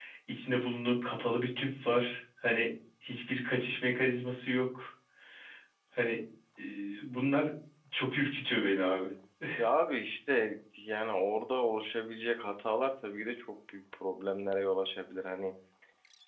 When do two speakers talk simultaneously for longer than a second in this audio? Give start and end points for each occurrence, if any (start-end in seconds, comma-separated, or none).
none